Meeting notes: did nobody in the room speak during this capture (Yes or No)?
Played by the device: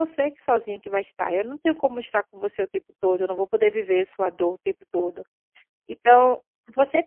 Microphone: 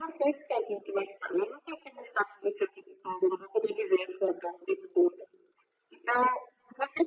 Yes